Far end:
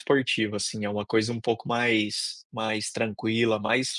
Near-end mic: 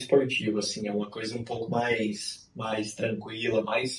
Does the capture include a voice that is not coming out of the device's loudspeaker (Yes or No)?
No